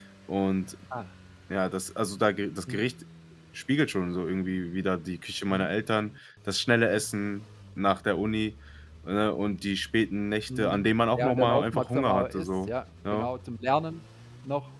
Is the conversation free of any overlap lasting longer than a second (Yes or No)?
No